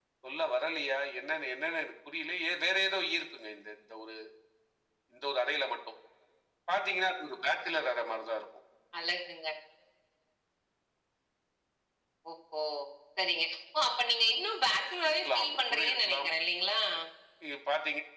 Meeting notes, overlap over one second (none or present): present